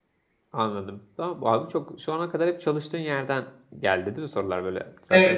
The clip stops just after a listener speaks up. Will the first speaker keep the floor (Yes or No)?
No